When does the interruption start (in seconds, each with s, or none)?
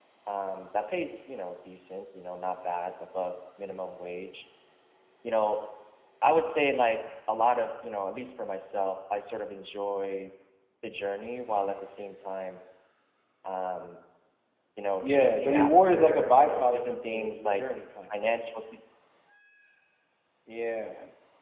15.0 s